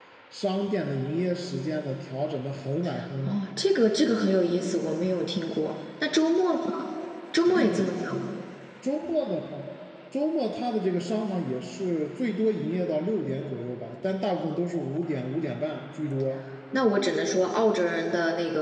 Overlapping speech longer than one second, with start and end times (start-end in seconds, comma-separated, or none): none